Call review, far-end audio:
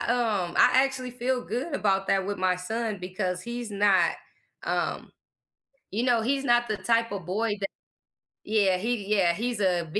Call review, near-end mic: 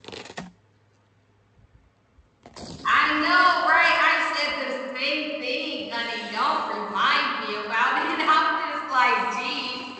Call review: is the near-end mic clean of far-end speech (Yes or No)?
Yes